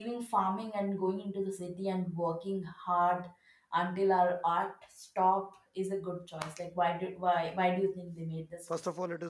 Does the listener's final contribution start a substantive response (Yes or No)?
Yes